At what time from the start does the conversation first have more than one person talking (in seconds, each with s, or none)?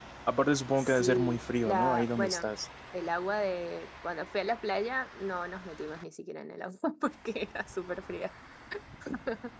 0.8 s